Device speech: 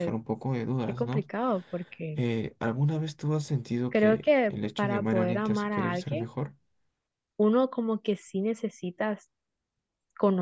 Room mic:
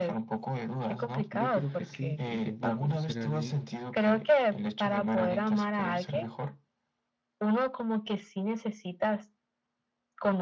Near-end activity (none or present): present